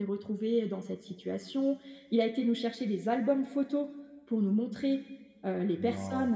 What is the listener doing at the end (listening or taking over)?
listening